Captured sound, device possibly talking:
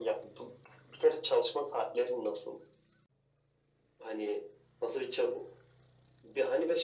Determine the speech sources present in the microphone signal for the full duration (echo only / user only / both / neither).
echo only